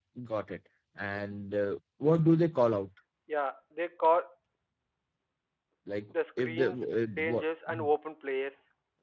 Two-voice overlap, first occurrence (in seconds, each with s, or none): 6.4 s